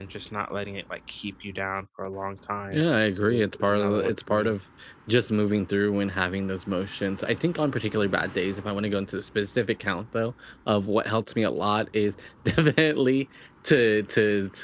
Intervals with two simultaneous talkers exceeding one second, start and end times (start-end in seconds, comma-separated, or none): 3.3-4.6